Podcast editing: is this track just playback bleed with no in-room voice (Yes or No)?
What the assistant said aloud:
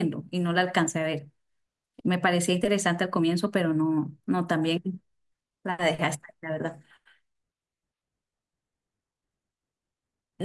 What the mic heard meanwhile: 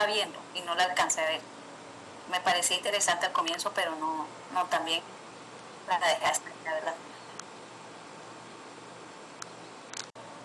Yes